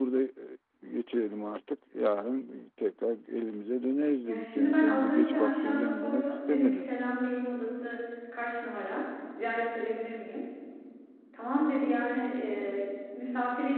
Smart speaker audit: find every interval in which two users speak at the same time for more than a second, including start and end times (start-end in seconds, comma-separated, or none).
4.2-6.9